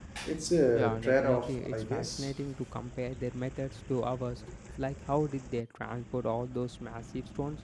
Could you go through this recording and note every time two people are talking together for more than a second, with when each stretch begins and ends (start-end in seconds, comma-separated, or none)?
0.7-2.4